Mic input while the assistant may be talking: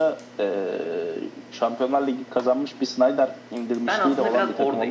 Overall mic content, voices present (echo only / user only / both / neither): both